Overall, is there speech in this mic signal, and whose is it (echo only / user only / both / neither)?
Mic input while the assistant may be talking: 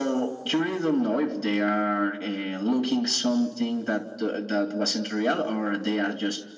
echo only